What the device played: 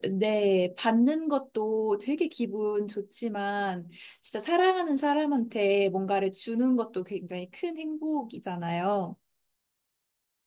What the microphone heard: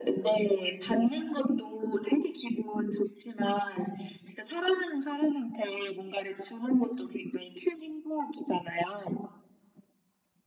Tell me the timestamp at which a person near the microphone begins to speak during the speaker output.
none

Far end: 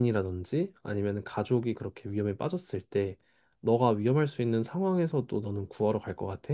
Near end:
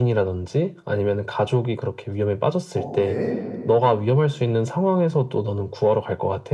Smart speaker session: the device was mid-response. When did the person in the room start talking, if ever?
2.7 s

